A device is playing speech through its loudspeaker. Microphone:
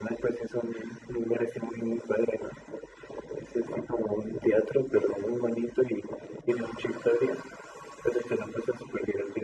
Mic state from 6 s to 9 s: echo only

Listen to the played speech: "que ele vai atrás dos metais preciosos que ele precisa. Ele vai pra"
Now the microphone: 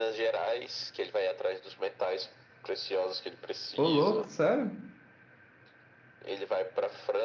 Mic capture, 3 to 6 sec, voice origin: both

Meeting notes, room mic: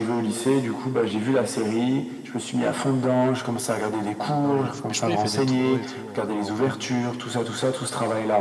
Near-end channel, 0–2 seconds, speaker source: echo only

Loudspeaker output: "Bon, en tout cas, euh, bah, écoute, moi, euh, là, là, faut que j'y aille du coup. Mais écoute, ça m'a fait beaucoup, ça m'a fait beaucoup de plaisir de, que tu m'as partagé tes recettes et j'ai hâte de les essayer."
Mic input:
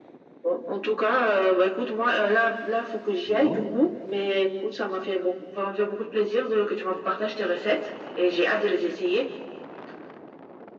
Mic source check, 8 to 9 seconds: echo only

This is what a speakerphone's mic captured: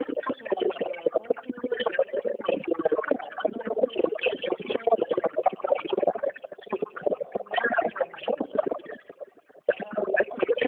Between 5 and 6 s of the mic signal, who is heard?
echo only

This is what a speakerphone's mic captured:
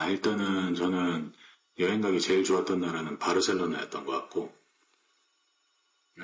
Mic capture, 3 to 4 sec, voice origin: echo only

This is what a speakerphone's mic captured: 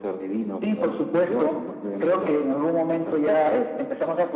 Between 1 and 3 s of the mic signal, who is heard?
echo only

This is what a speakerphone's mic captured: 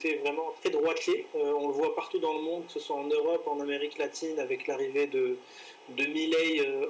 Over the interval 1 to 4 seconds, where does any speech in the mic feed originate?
echo only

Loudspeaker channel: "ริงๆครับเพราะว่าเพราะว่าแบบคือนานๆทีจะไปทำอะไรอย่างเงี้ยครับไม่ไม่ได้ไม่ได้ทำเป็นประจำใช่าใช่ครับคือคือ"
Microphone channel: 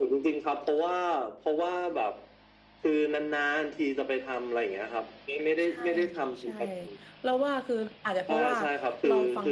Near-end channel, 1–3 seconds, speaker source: echo only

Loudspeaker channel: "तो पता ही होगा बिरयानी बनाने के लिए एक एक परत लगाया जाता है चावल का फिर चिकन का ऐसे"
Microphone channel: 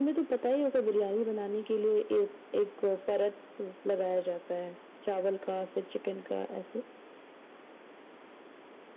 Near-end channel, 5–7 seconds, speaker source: echo only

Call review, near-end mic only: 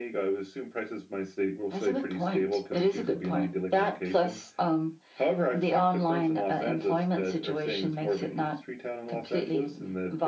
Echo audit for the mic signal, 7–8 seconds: echo only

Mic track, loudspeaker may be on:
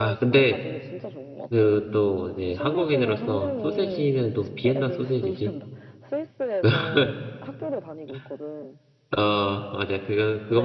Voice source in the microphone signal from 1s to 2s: both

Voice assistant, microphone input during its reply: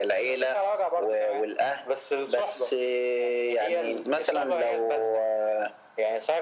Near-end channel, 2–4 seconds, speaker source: echo only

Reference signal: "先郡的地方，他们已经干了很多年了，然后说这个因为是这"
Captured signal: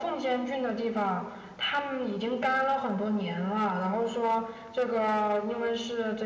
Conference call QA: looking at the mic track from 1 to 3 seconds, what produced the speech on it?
echo only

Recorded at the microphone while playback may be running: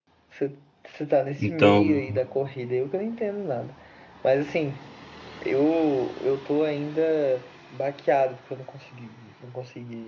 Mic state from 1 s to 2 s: both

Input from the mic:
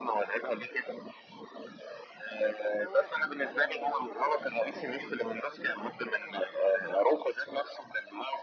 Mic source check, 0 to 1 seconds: echo only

